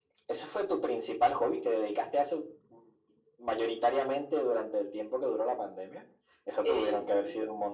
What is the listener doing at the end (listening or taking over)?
listening